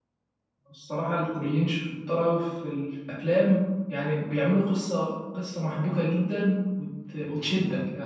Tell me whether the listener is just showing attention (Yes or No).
Yes